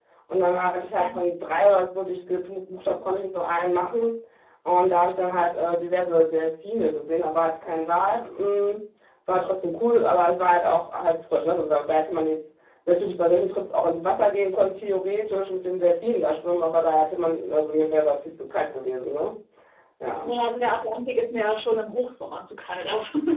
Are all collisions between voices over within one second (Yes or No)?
Yes